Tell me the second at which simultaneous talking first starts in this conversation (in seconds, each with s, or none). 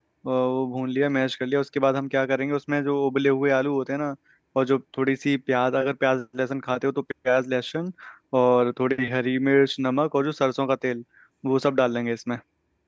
none